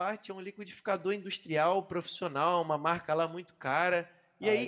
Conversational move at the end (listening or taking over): listening